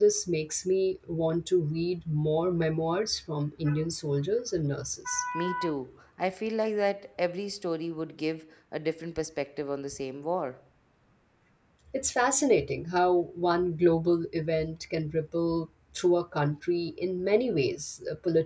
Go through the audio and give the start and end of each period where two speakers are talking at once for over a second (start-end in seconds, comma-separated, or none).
none